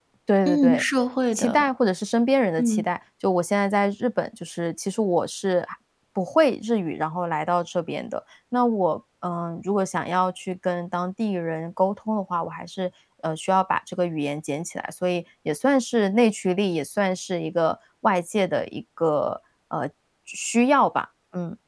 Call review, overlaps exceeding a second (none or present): none